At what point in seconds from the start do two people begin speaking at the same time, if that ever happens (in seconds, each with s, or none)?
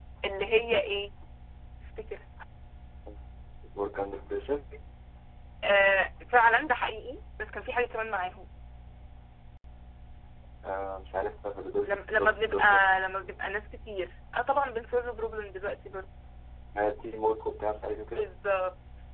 11.8 s